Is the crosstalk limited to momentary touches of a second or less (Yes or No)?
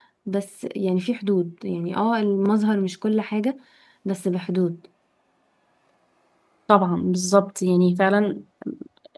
Yes